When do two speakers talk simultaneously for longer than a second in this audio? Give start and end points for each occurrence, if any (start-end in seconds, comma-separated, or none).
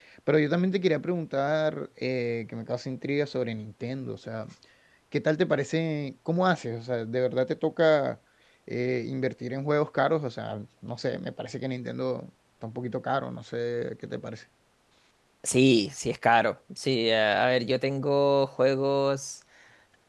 none